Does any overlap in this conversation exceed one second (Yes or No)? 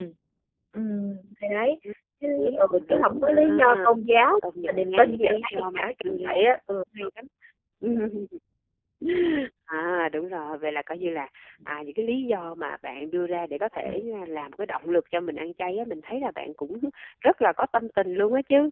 Yes